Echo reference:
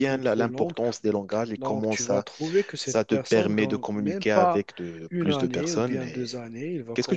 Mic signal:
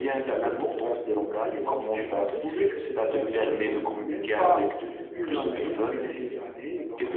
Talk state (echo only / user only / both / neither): both